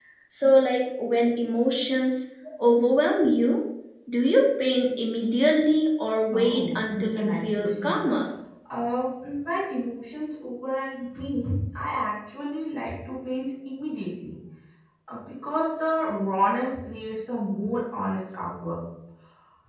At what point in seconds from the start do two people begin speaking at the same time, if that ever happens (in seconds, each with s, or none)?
6.3 s